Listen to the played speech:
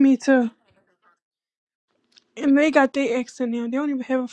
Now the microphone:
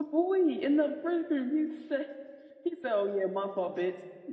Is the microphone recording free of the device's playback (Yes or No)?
Yes